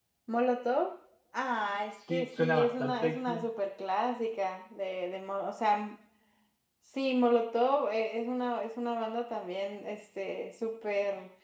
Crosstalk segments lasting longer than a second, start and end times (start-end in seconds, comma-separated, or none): 2.1-3.4